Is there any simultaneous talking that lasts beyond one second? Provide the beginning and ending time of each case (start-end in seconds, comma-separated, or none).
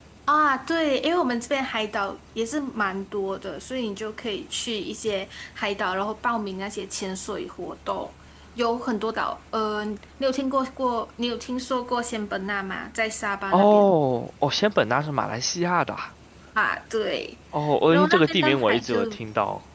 17.9-19.2